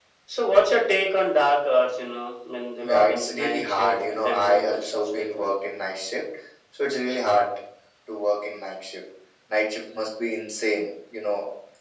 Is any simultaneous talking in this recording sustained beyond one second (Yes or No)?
Yes